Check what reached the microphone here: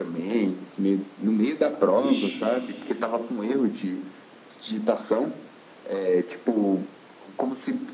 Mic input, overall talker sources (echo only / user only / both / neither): both